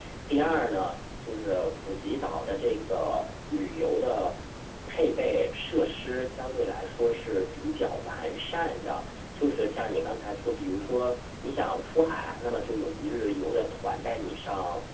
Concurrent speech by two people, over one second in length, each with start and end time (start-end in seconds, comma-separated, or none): none